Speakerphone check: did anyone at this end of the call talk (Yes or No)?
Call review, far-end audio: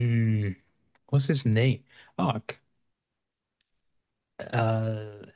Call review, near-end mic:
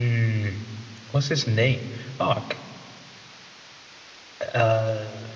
No